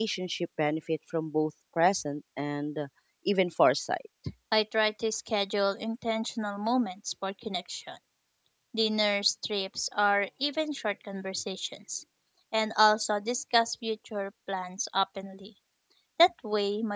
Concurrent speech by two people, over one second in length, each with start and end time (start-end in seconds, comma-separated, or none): none